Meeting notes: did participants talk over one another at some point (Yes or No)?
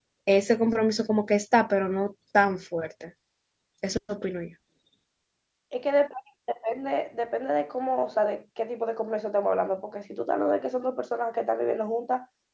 No